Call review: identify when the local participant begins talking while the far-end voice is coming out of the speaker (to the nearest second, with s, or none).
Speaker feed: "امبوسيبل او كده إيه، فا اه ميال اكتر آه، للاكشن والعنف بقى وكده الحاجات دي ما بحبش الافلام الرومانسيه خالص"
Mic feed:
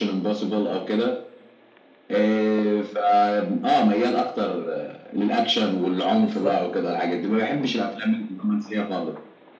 6 s